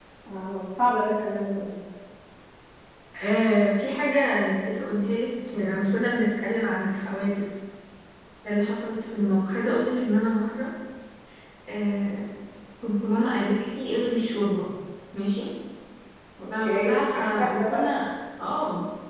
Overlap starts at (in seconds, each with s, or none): 16.6 s